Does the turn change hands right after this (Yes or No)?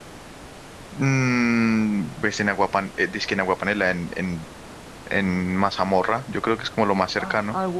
Yes